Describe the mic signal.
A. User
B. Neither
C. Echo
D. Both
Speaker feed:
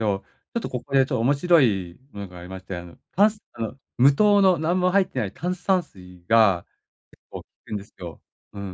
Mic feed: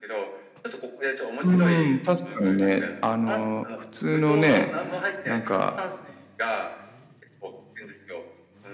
D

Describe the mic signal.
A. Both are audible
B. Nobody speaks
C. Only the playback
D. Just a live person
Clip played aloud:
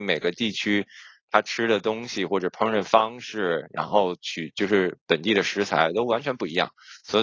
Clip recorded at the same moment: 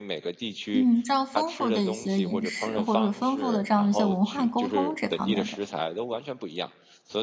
A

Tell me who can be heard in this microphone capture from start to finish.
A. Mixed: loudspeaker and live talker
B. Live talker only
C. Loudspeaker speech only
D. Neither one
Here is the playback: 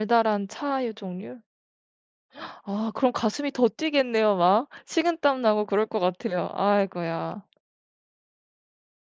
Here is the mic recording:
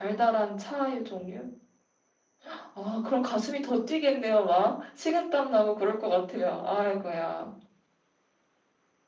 C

